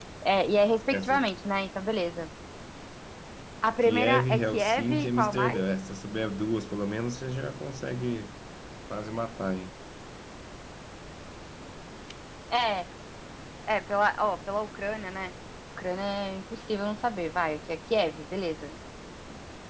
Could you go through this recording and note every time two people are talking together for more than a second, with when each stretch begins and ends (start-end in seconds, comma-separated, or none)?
3.8-5.6